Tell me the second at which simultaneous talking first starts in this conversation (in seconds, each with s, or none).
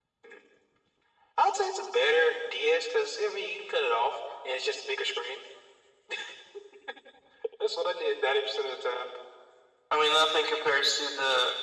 none